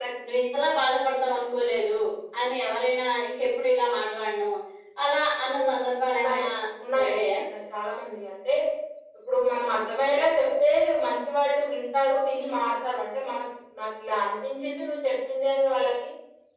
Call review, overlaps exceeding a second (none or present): none